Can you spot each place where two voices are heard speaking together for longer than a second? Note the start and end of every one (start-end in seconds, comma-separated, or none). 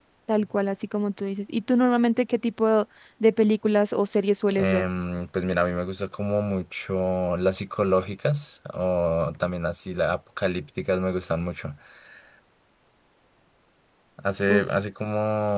none